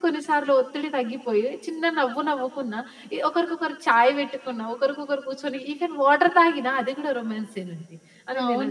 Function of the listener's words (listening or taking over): taking over